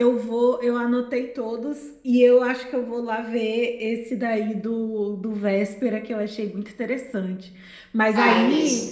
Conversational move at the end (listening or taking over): listening